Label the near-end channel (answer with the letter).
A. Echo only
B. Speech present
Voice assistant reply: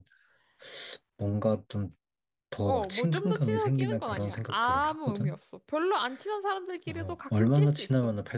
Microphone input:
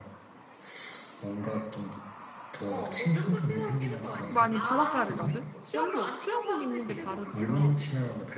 B